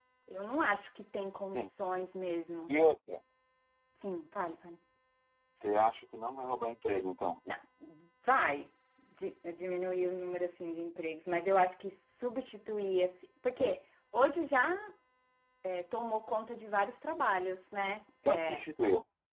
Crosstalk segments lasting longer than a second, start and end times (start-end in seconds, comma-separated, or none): none